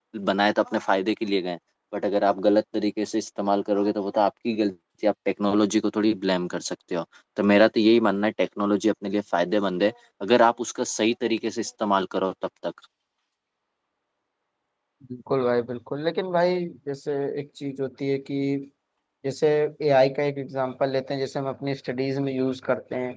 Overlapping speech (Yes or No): No